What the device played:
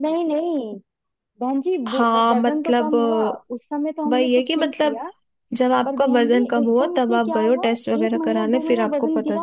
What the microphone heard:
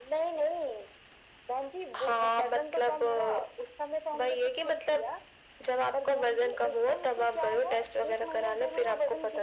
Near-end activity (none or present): none